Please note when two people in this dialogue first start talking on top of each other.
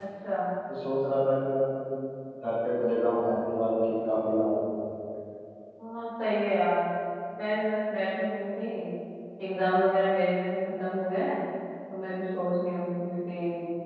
none

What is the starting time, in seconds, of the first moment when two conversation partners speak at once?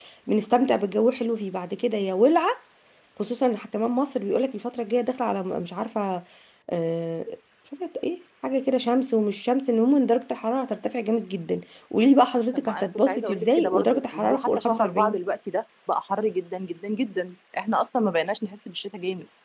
13 s

